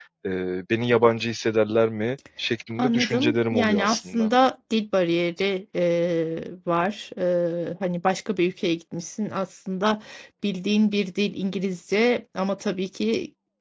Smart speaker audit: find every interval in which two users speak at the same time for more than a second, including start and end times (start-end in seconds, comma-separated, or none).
2.8-4.3